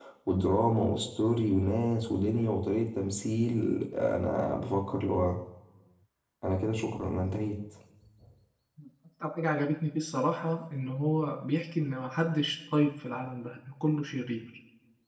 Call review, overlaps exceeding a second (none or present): none